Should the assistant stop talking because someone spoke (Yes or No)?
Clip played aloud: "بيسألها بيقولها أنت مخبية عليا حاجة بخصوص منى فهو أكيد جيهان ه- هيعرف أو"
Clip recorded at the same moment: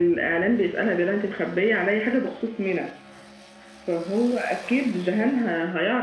No